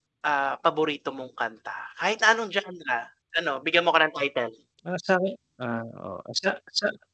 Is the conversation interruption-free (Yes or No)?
Yes